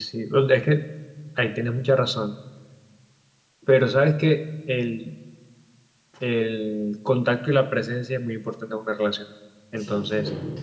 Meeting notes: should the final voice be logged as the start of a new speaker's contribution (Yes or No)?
No